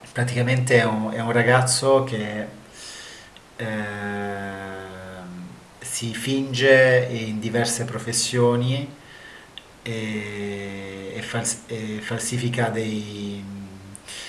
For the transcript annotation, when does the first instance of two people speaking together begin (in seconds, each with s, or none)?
none